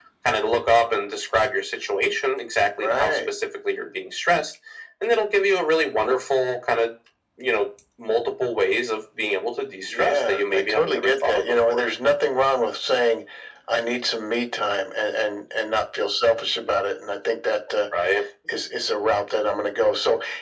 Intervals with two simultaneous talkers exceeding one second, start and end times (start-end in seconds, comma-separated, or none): 9.9-11.8